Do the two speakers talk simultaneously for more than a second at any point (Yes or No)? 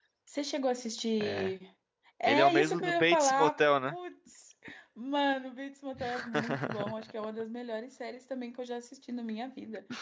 Yes